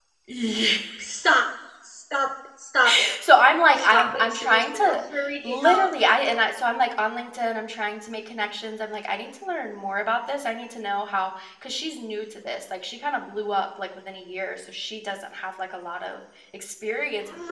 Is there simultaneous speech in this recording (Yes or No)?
Yes